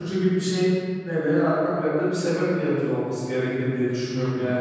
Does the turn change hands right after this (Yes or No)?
Yes